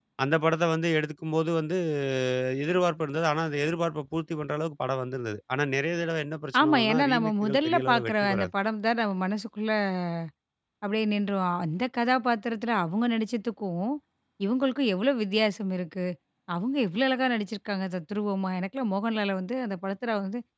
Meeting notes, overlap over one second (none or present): present